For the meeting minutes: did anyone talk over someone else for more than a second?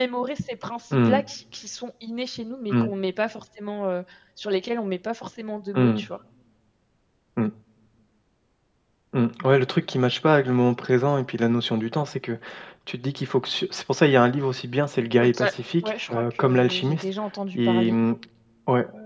Yes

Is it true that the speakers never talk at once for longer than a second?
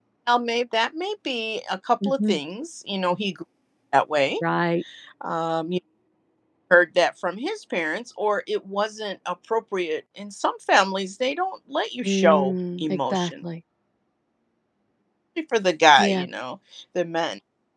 No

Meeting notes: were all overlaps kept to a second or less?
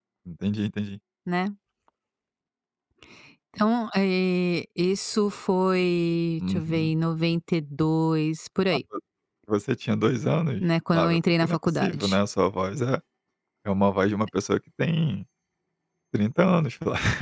No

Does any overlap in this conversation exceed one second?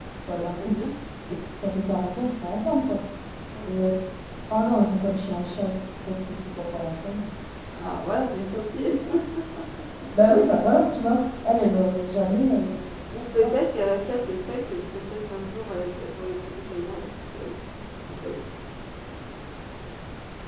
No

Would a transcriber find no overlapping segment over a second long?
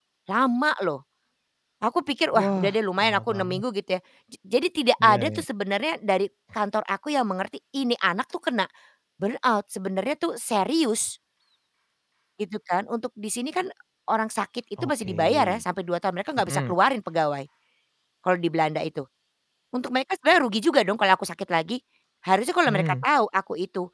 No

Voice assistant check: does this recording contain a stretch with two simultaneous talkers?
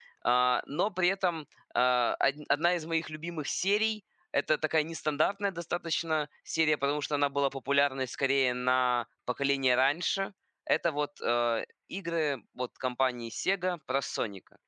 No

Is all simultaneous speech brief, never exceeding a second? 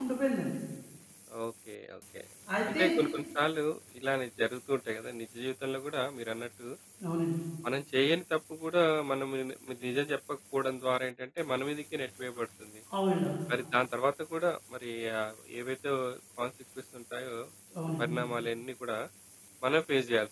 Yes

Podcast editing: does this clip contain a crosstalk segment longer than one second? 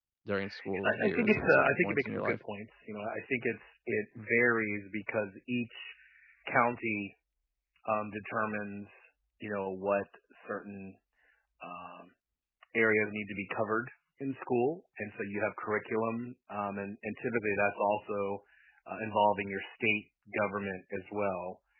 Yes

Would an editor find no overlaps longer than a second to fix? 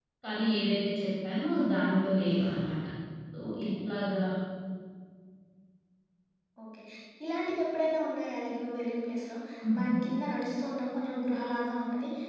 Yes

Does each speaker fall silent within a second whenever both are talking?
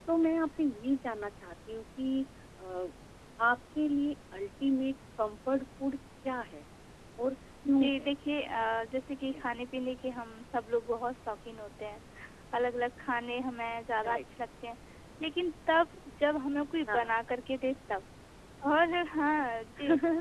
Yes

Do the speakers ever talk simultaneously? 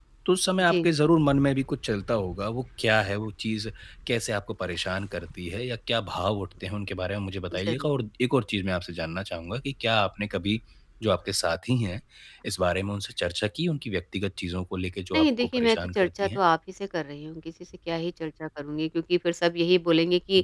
Yes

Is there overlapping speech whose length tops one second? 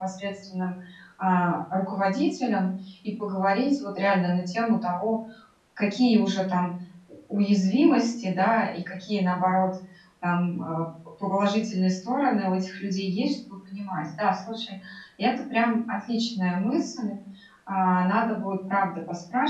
No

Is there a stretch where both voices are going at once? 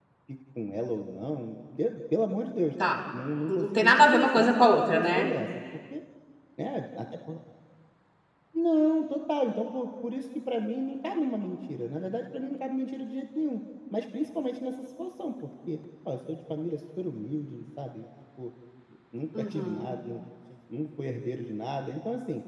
Yes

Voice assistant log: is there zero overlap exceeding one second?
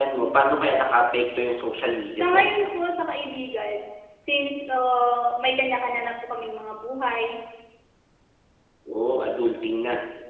Yes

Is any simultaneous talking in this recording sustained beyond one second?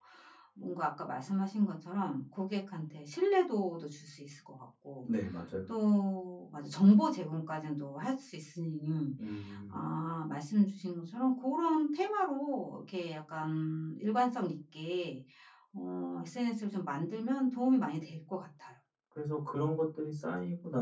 No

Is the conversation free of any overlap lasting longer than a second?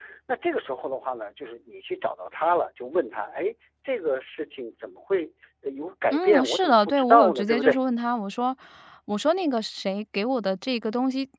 No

